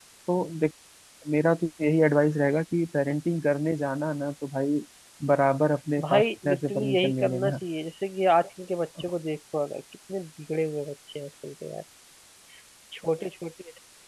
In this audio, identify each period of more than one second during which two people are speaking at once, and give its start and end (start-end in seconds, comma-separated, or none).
6.0-7.5